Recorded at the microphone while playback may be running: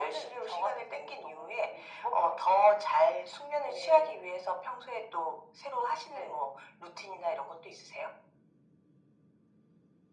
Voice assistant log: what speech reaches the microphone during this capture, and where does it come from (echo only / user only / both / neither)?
echo only